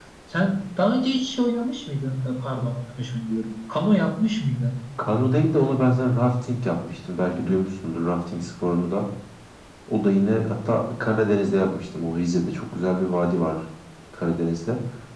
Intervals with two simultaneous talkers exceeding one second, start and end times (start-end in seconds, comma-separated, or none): none